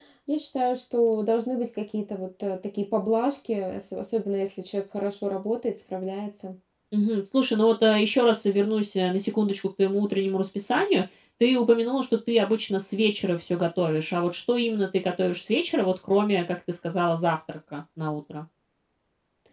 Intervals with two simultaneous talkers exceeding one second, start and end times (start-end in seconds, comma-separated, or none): none